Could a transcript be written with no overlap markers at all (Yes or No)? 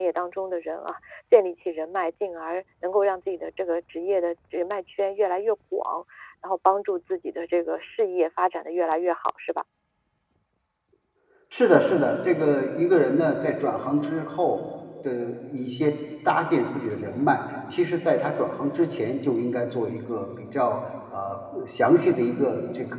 Yes